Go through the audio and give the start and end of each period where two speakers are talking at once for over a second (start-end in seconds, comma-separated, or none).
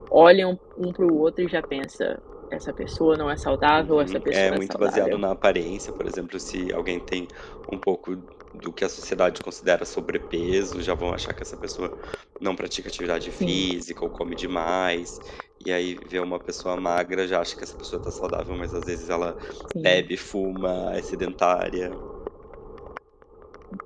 3.8-5.2